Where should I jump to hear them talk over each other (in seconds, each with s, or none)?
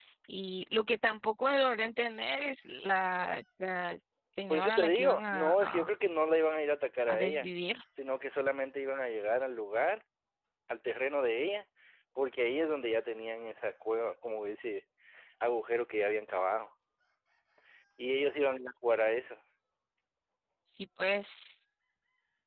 4.5 s